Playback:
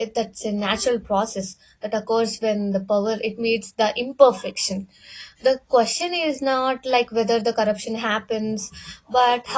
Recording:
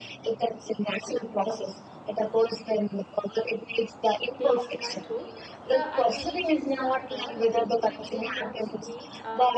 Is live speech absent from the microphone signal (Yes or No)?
No